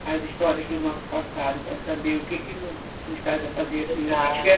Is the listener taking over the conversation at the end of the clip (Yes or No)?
No